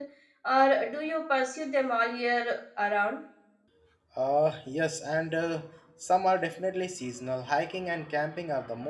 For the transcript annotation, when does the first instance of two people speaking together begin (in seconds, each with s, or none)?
none